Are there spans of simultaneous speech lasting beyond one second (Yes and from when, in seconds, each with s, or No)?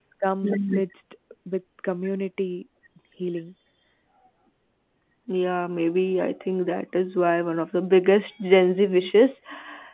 No